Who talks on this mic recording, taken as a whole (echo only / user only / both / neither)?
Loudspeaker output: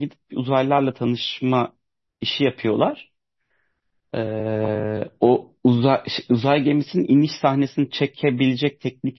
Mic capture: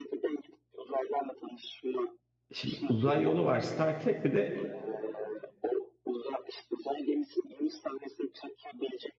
both